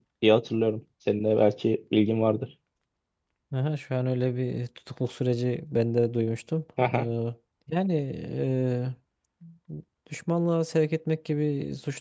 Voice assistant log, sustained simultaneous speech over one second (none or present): none